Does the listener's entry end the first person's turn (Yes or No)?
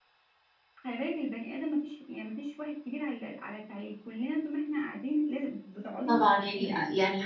Yes